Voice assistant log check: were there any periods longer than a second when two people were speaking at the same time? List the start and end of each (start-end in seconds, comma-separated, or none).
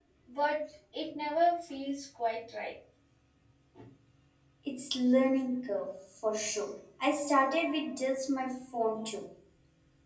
none